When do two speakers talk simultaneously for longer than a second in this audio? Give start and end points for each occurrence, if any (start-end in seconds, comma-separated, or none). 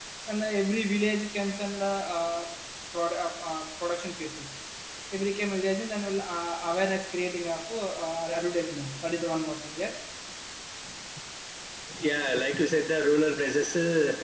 none